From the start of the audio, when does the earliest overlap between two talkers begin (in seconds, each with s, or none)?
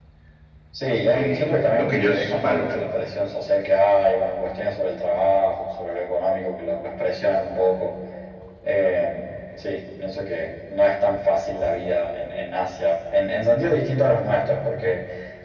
1.1 s